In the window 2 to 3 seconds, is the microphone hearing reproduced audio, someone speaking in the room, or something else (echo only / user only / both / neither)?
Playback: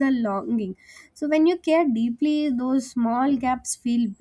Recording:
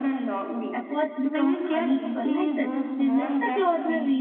both